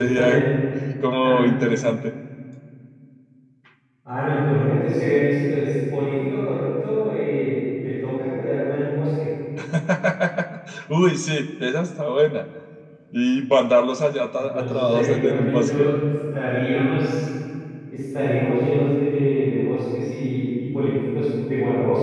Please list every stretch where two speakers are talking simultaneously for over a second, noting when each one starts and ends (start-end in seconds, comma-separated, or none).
14.4-15.9